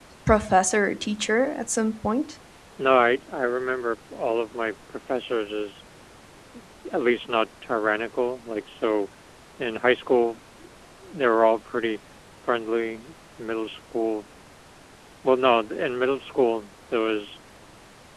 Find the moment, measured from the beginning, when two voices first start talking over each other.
none

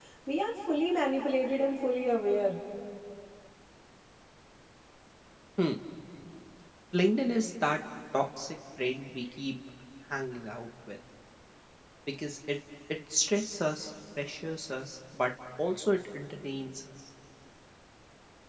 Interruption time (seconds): none

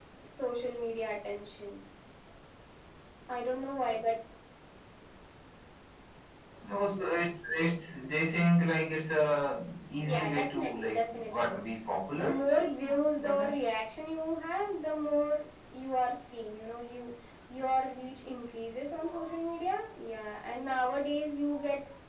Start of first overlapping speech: 10 s

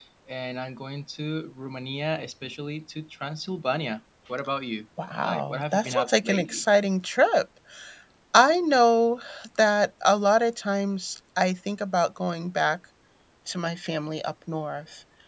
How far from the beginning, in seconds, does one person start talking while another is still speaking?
5 s

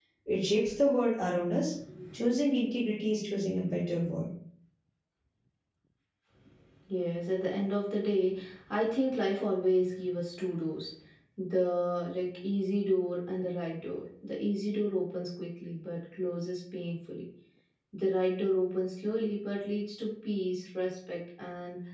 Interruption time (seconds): none

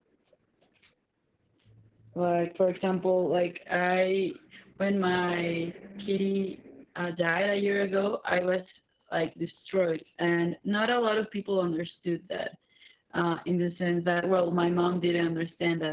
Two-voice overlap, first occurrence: none

